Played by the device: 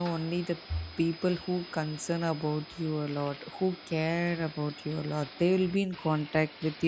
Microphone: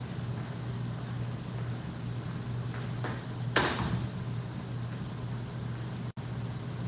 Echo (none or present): none